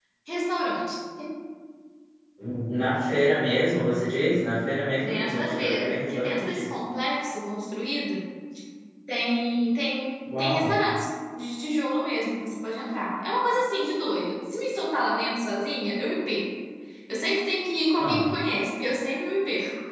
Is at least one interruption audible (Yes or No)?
Yes